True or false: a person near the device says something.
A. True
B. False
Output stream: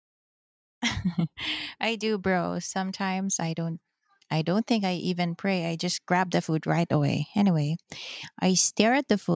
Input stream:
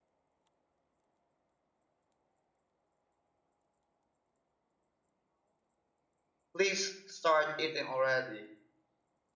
A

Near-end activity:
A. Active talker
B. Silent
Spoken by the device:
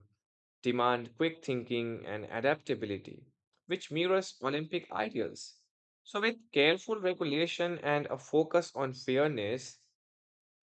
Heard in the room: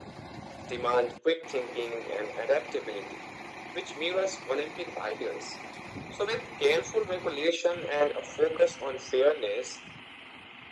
B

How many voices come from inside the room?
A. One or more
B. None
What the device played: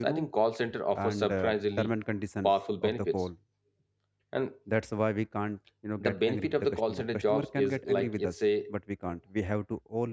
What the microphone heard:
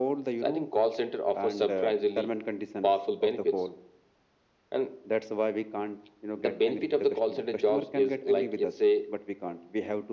B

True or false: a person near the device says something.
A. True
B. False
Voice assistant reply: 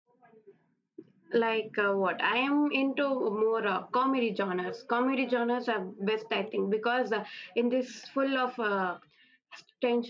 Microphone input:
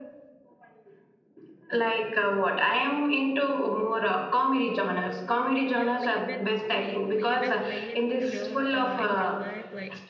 A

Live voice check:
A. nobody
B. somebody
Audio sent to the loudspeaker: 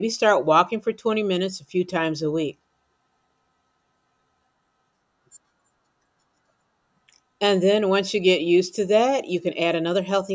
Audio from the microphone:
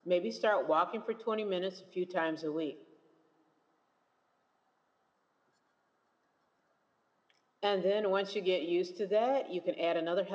A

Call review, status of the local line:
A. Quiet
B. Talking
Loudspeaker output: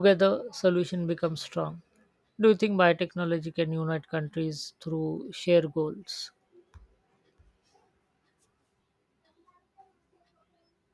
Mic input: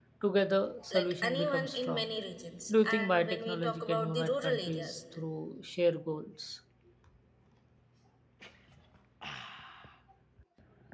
B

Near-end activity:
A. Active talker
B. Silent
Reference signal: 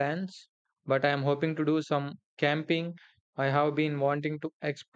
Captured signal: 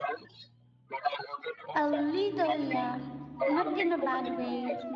A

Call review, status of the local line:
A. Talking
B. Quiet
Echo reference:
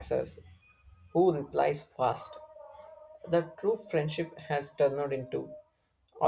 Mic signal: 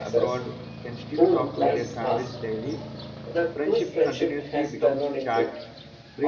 A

